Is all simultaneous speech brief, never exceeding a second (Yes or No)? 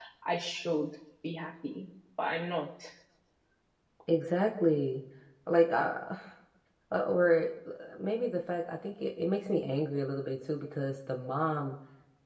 Yes